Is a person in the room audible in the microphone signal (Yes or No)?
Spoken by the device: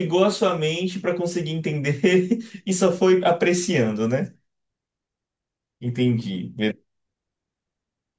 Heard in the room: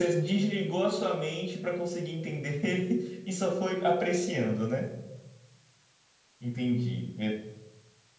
No